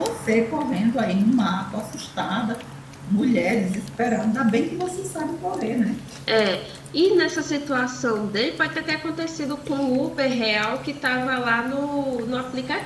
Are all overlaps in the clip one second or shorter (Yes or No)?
Yes